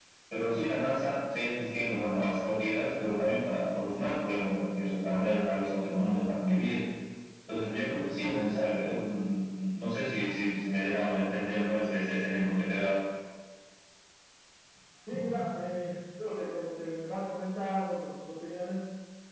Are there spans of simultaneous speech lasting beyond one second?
No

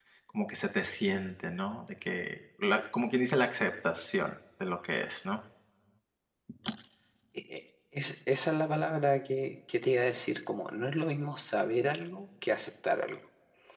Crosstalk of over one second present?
No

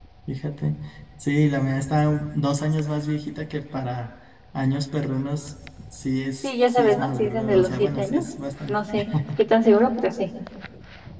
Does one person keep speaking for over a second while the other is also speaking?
Yes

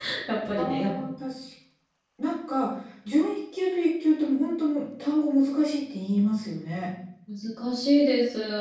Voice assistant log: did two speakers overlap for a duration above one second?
No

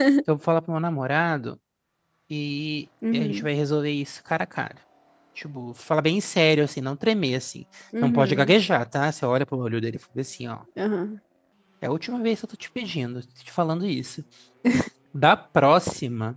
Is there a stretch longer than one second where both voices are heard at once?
No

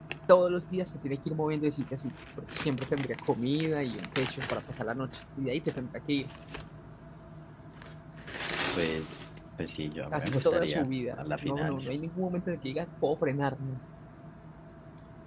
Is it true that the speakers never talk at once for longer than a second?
No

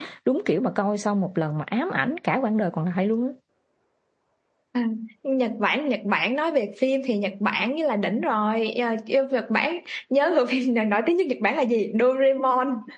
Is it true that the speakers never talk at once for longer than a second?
Yes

